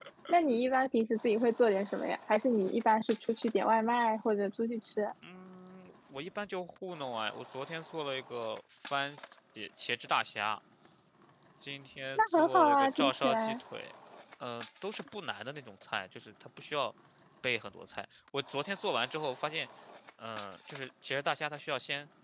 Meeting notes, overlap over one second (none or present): present